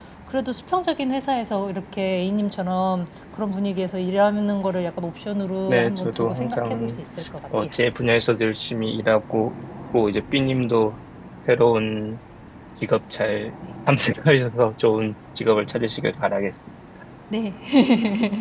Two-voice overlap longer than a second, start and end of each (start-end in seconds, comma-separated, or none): 5.7-6.9